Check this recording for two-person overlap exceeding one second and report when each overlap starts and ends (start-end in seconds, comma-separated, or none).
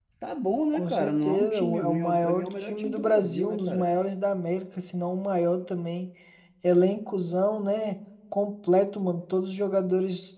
0.7-3.9